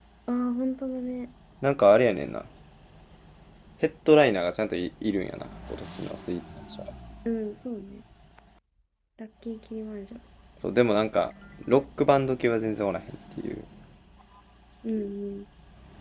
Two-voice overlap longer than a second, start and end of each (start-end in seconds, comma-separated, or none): none